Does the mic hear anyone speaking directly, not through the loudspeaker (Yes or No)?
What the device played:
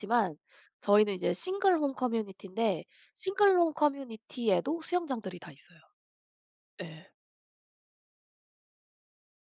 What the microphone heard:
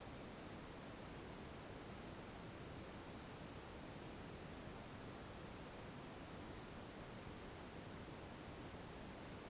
No